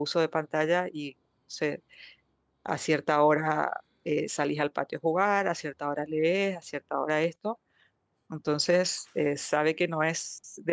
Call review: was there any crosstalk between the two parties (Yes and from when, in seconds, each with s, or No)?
No